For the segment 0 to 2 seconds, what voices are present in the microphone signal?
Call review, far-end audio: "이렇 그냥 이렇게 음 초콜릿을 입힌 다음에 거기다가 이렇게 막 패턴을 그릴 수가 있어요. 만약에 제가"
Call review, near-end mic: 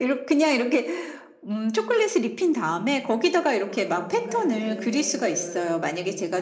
echo only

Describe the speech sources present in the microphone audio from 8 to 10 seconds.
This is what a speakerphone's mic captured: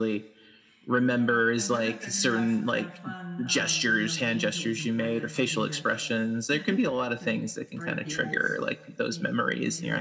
both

